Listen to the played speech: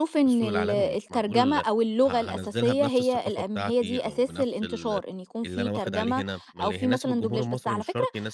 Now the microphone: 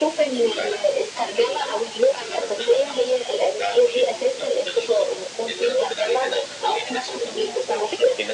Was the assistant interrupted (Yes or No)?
No